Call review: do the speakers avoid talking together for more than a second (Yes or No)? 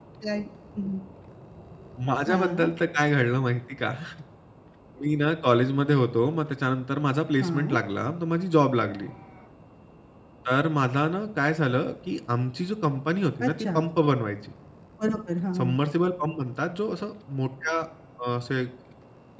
Yes